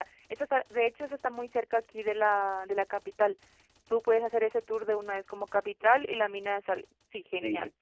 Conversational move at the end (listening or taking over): taking over